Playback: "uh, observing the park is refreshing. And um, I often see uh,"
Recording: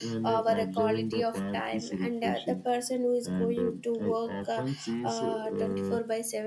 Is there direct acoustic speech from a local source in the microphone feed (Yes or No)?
Yes